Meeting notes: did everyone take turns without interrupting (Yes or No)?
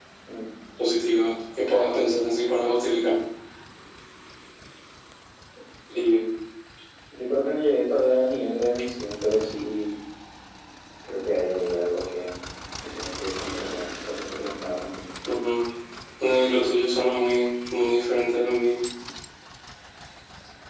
Yes